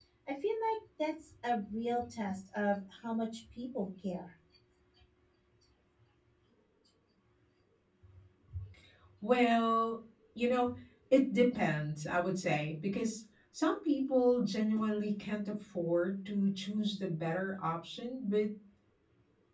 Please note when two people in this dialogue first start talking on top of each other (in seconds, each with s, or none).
none